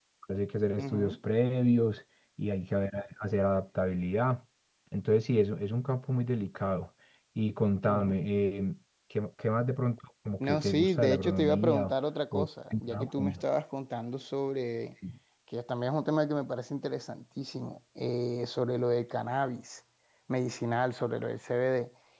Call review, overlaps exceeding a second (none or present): present